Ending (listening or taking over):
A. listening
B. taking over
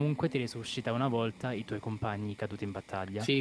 B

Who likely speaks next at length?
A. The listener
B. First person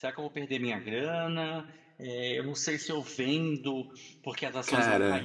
B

